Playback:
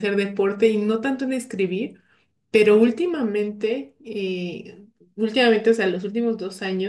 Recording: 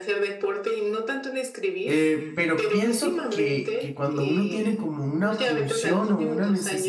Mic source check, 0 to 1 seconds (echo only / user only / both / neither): echo only